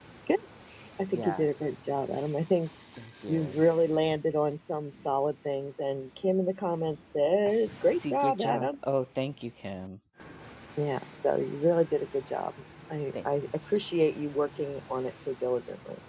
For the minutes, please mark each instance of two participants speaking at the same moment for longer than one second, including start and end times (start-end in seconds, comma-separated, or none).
7.5-8.8